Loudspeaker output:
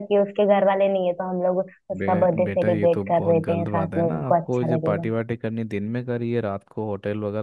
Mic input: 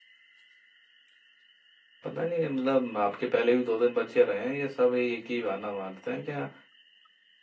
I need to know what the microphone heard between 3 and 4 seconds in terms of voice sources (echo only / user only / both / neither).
user only